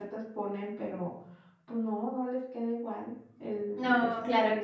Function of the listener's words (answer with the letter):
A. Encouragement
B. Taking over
B